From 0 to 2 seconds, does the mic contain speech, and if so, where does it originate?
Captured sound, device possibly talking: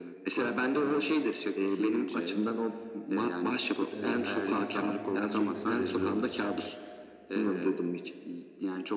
echo only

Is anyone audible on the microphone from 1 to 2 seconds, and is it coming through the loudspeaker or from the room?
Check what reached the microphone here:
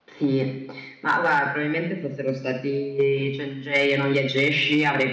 echo only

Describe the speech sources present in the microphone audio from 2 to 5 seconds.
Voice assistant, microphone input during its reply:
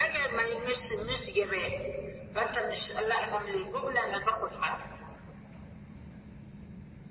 echo only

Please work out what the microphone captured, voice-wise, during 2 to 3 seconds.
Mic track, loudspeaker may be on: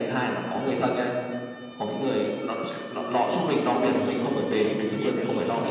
echo only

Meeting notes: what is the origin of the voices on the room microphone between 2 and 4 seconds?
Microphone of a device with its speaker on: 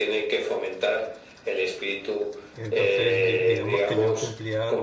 both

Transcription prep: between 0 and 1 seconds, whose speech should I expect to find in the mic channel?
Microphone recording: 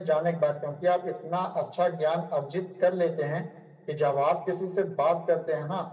echo only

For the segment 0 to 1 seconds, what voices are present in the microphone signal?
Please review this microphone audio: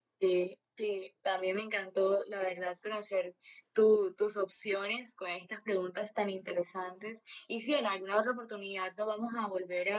echo only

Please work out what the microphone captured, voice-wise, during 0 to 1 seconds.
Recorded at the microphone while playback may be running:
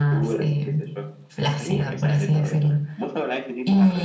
echo only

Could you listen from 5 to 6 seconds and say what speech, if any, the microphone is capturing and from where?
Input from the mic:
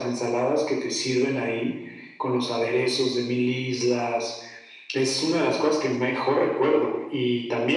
echo only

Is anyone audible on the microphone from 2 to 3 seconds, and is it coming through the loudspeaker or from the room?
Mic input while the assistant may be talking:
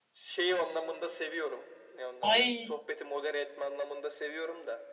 both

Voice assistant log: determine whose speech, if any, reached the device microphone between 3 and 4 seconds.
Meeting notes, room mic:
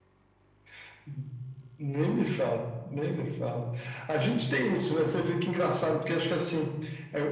echo only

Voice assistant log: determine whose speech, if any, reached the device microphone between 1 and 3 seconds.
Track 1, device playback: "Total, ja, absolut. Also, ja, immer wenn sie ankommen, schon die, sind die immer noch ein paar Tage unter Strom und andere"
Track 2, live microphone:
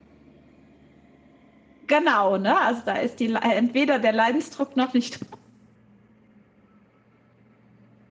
user only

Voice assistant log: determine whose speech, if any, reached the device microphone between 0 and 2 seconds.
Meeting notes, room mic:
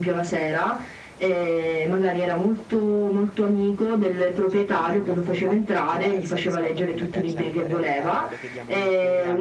echo only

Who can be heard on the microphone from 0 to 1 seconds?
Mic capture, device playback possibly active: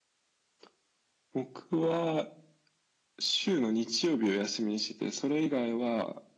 neither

